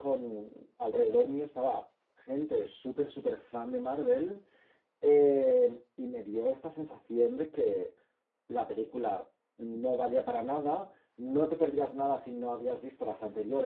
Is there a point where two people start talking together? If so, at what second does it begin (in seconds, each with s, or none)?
none